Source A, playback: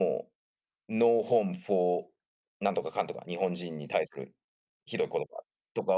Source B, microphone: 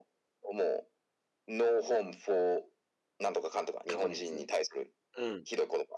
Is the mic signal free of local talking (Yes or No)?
No